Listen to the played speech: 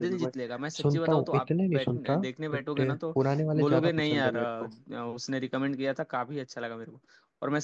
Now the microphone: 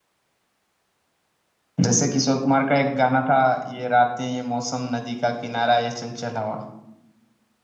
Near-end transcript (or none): जैसे किशोर कुमार का एक गाना था ये रातें ये मौसम नदी का किनारा ये चंचल हवा